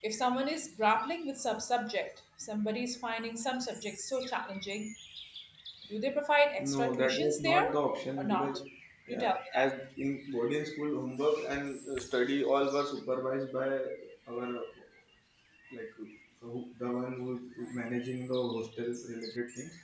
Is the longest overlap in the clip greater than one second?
Yes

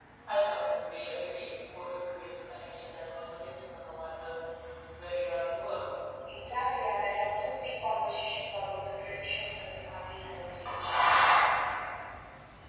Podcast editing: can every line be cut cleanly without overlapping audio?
Yes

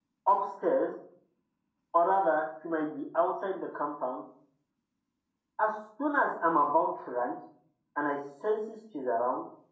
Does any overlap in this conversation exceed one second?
No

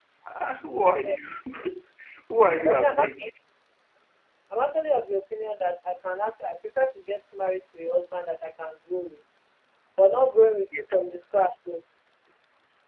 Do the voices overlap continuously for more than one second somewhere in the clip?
No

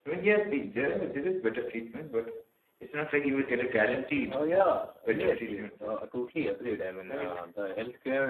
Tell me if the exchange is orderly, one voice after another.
No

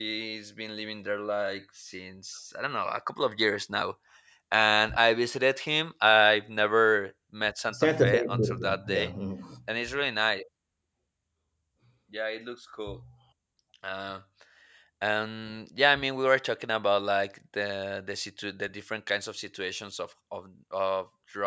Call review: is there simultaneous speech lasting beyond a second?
Yes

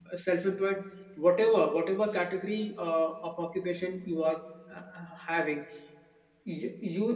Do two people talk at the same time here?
No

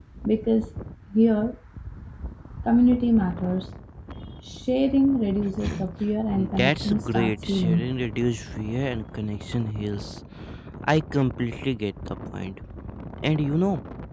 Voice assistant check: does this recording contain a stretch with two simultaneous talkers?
Yes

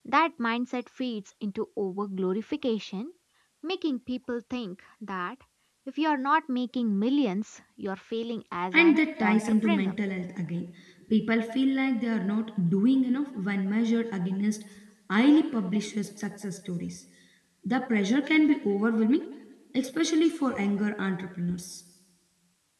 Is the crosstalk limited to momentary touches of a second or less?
No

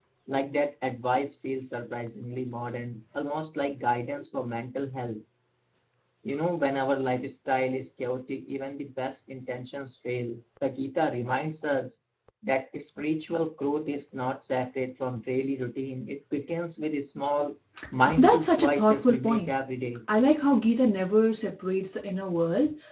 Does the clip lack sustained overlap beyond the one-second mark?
No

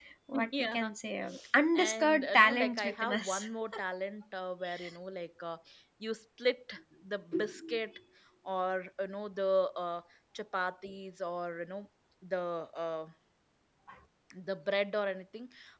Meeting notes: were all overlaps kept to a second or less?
No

